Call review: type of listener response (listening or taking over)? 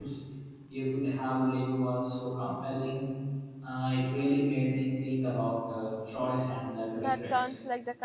taking over